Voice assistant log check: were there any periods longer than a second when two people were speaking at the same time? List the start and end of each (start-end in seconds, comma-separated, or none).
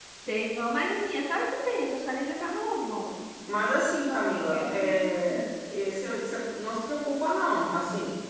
4.1-5.4